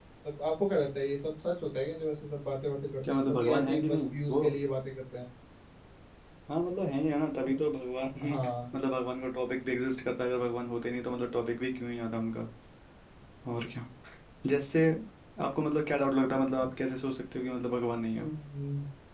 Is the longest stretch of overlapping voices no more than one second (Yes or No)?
No